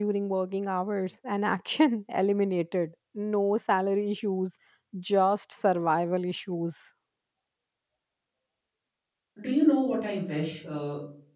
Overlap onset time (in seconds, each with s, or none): none